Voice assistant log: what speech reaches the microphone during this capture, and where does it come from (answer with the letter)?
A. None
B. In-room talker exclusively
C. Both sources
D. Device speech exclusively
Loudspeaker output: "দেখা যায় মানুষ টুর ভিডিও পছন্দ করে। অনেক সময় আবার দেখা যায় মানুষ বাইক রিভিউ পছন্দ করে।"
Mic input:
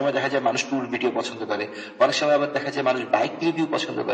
D